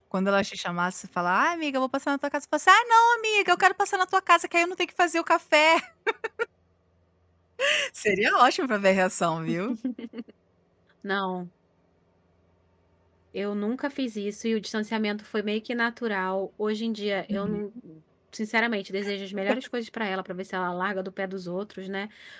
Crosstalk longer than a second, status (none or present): none